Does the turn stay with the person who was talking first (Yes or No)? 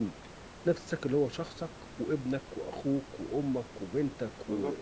No